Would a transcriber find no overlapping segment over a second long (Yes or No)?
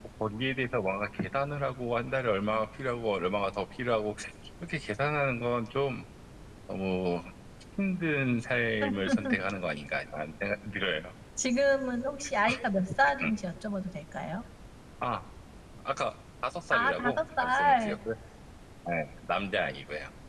No